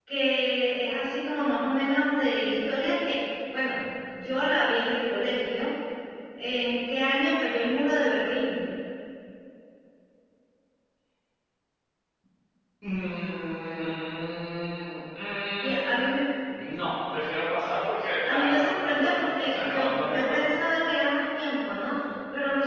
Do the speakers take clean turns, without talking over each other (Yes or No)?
No